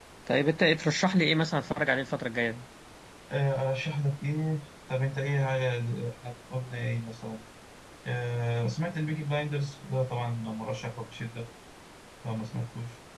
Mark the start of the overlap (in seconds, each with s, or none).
none